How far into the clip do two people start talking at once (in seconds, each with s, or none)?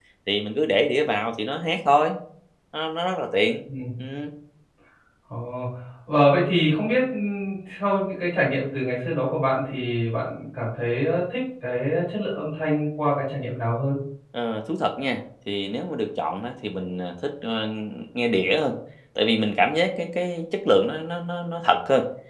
none